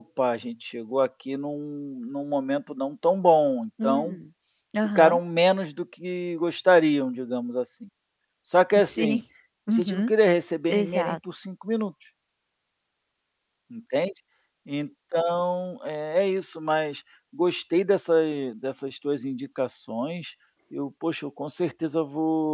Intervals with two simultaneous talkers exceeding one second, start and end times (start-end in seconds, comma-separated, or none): none